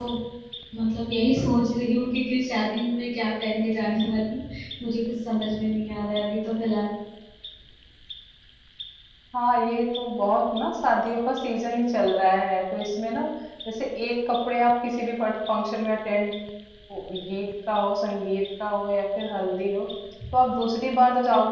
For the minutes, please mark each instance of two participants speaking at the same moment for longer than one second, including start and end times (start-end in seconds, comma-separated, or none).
none